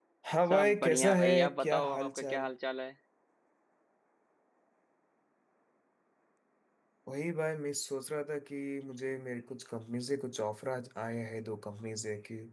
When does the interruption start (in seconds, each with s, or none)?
0.5 s